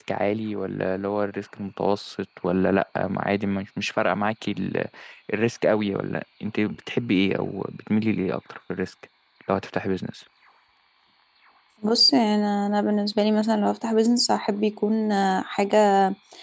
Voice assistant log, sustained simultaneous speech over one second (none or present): none